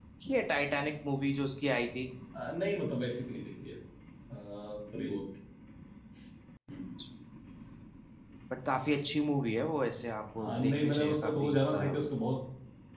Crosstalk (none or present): present